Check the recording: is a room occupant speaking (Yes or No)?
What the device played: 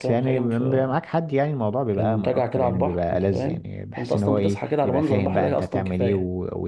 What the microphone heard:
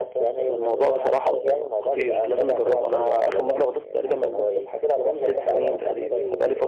Yes